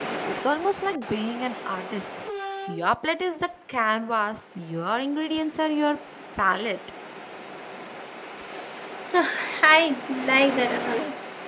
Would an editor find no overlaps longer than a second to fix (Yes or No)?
Yes